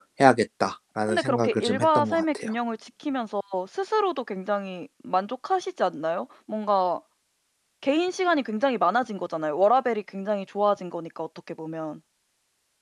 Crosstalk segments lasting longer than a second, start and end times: 1.1-2.5

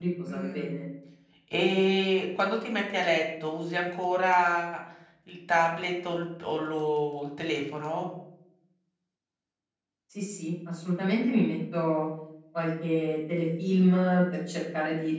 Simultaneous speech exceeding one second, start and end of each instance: none

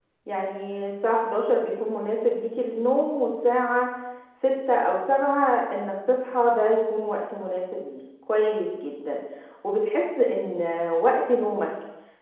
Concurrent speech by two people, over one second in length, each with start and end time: none

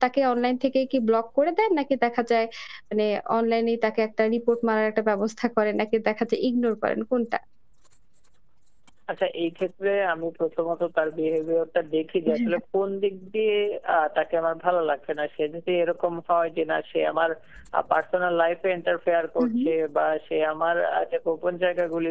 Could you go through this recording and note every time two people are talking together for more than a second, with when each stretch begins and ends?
none

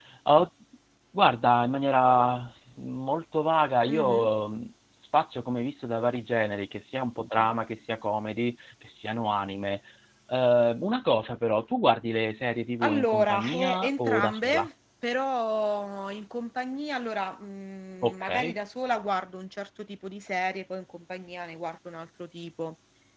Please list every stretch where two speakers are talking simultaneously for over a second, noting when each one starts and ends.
12.8-14.7

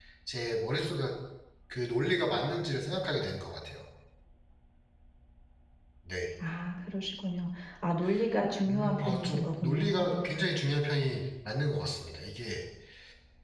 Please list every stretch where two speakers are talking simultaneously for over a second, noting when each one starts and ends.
8.7-10.0

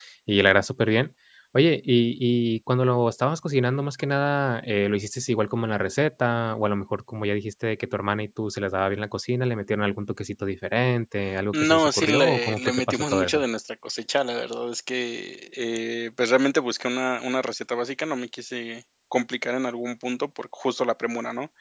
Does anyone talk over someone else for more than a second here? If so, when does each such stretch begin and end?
11.5-13.4

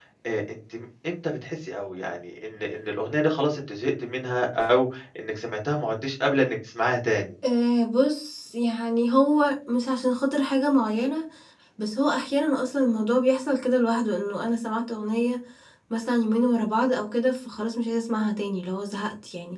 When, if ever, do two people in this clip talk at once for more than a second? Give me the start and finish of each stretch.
none

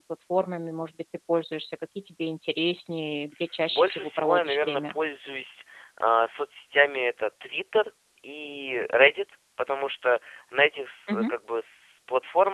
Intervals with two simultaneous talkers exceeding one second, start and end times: 3.7-4.9

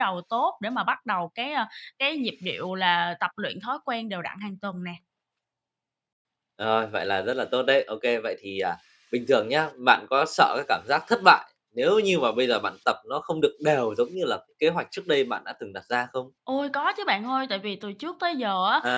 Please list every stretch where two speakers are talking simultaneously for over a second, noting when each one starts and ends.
none

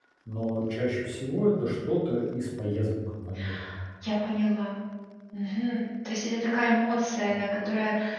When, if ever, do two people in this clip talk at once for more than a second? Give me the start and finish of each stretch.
none

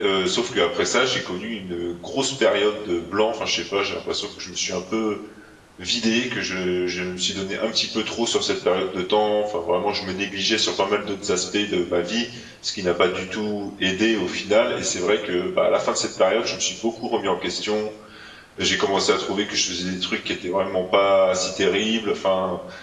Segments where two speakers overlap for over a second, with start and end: none

